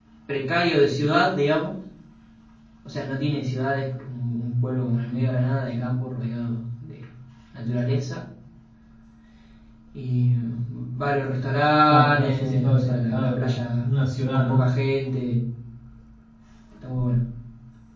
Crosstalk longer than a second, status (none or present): present